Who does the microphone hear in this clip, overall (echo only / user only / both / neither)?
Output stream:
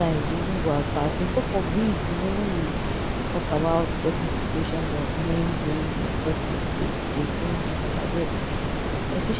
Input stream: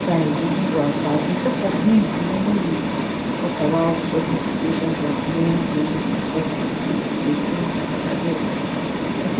echo only